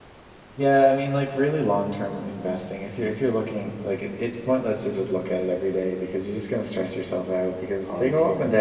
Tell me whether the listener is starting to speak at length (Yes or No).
No